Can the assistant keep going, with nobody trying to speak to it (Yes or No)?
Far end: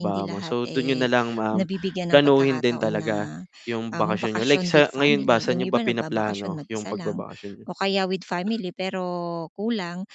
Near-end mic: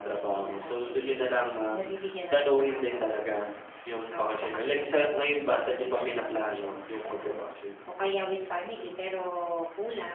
Yes